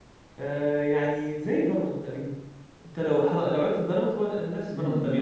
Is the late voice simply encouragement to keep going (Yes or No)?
No